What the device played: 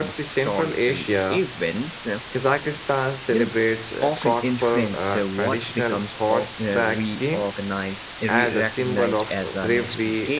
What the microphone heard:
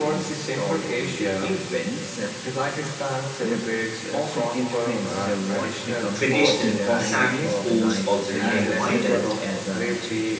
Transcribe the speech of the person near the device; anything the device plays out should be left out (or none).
traditional cossack sports also remain vital